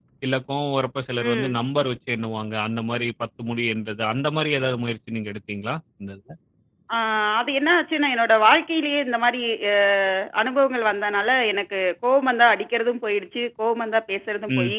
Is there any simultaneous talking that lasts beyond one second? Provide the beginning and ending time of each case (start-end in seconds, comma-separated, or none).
none